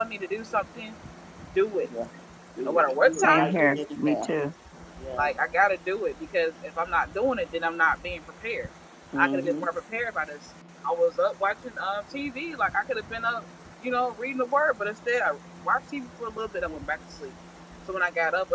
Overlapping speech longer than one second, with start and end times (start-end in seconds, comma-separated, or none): 2.6-4.3